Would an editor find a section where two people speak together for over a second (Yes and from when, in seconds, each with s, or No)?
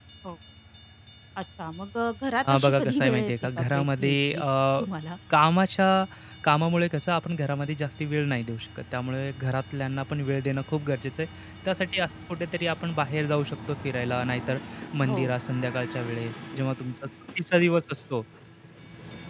Yes, from 2.4 s